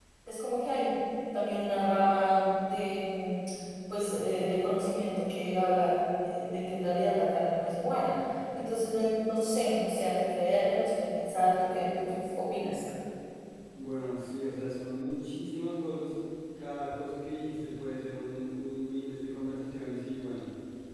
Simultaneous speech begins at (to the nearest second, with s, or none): none